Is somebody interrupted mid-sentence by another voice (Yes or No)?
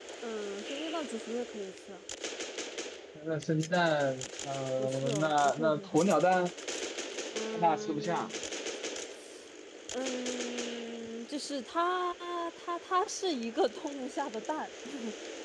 Yes